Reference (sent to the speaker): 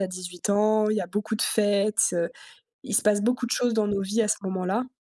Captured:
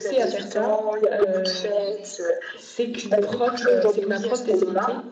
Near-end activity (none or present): present